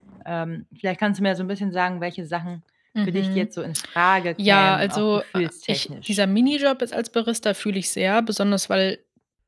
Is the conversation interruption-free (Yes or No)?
No